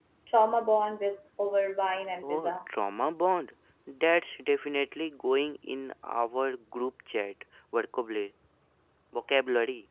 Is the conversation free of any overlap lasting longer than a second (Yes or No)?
Yes